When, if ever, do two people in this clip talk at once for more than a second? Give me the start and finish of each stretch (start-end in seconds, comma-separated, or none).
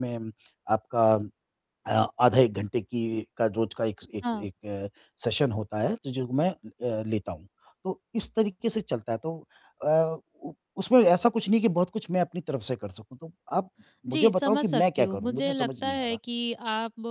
14.1-16.2